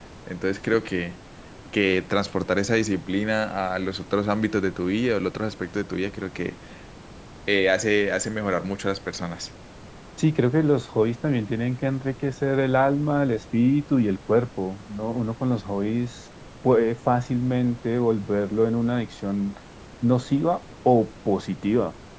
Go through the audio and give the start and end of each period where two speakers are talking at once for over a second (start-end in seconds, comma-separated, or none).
none